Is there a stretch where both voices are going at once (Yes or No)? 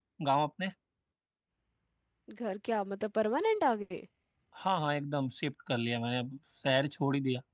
No